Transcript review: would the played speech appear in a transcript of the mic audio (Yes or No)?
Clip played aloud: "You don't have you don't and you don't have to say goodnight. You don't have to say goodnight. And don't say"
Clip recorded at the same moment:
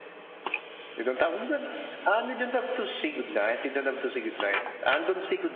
Yes